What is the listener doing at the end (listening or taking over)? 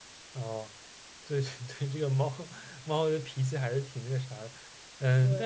listening